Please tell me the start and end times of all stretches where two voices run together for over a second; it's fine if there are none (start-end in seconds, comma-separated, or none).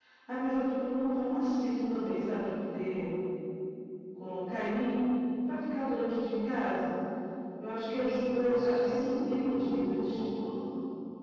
7.9-10.2